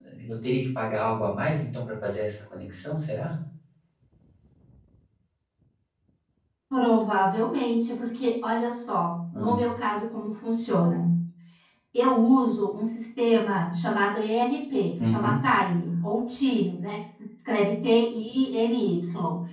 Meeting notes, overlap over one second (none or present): none